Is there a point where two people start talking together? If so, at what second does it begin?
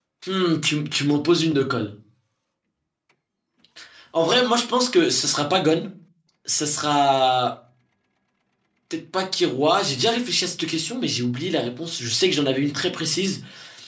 none

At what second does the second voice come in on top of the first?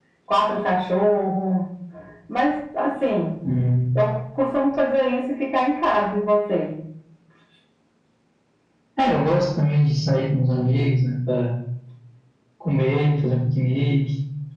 none

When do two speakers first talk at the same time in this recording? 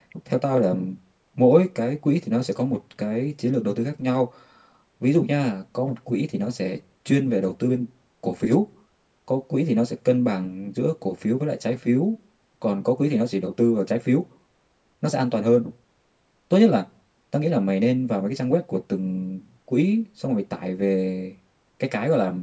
none

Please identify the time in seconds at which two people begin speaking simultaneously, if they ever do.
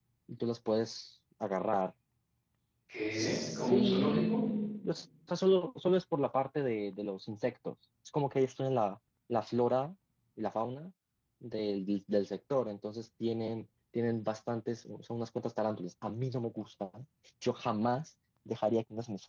3.1 s

